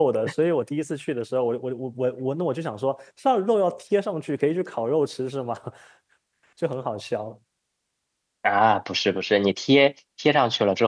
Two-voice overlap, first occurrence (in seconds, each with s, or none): none